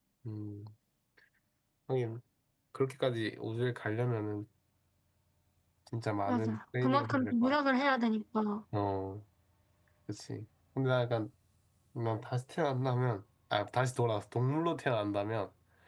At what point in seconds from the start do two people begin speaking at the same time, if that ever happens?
6.3 s

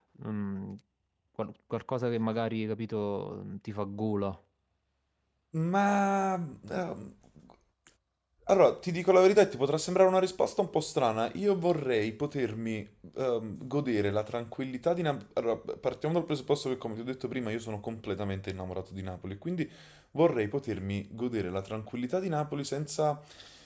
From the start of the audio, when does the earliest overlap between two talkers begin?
none

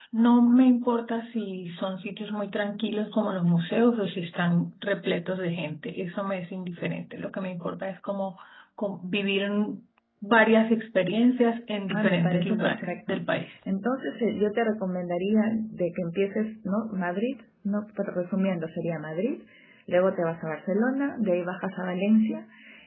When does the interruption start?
11.9 s

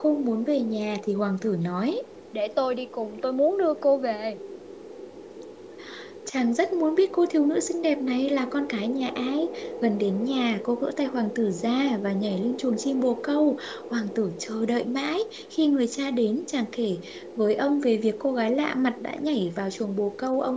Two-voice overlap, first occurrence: none

